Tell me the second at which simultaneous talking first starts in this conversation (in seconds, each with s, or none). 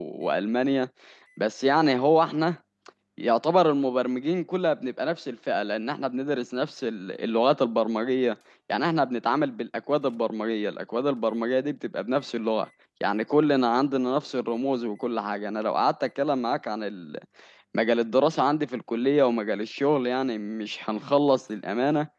none